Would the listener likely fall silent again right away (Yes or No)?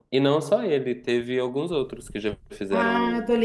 No